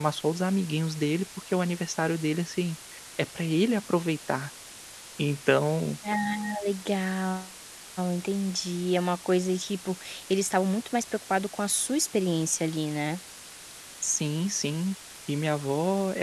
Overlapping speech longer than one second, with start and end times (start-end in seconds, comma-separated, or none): none